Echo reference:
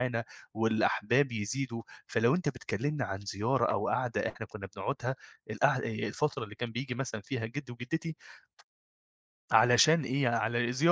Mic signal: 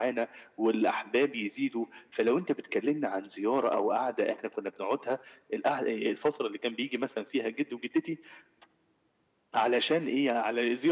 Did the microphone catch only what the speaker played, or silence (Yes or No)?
Yes